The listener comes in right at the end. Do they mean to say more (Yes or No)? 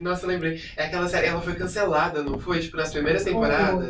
Yes